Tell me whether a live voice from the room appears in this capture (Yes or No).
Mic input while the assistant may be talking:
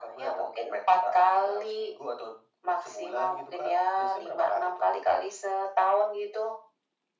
No